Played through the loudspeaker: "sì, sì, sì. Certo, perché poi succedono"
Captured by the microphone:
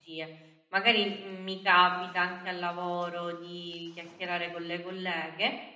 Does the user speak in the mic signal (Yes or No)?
Yes